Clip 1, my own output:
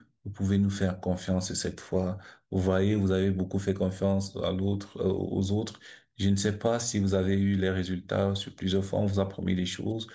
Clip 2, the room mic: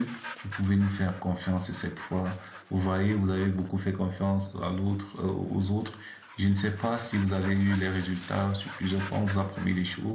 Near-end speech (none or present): none